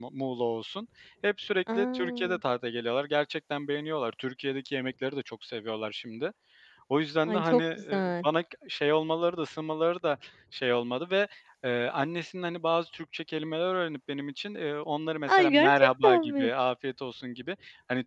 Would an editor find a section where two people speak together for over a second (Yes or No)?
Yes